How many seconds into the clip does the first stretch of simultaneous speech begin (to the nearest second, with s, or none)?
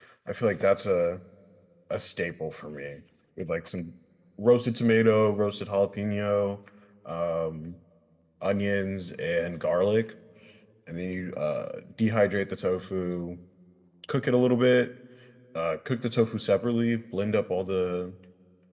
none